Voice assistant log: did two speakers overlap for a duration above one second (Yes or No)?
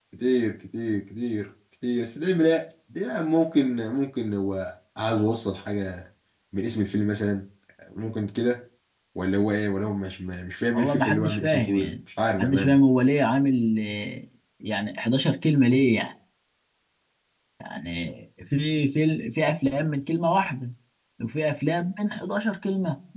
Yes